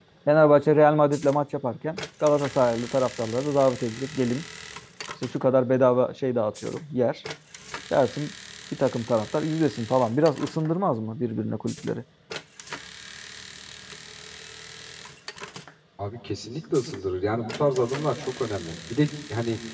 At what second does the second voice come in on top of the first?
none

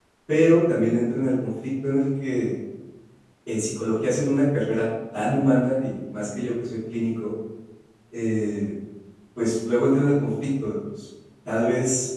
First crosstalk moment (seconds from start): none

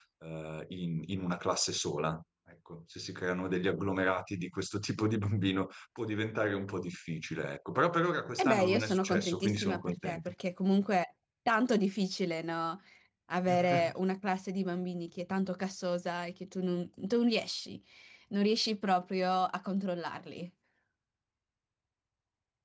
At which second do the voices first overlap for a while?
8.4 s

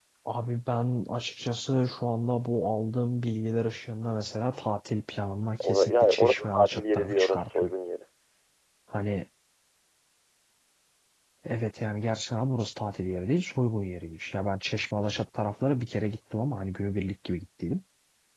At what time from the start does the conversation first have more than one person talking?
5.6 s

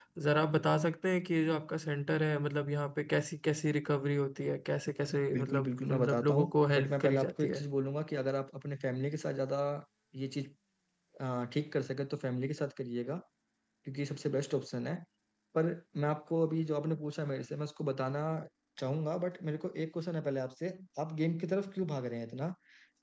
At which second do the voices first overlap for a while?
5.3 s

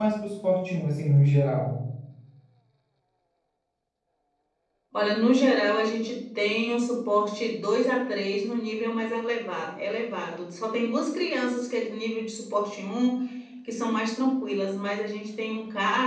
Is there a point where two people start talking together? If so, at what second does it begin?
none

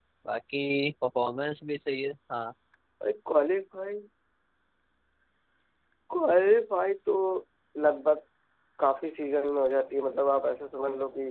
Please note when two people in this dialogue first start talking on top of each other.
none

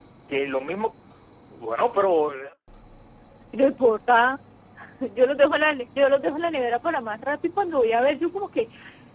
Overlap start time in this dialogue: none

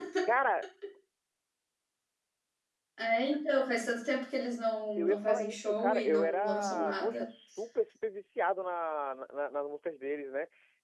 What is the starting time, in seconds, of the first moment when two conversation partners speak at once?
5.0 s

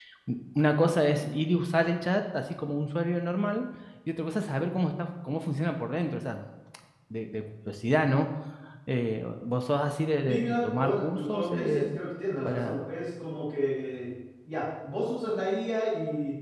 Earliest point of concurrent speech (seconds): 10.3 s

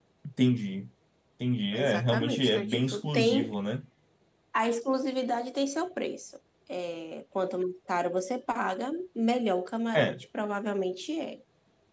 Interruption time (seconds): 1.8 s

